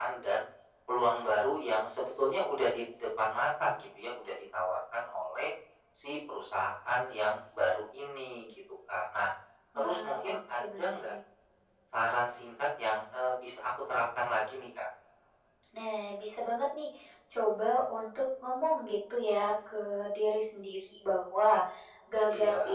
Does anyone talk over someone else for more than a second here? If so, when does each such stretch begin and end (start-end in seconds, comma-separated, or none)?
9.8-11.1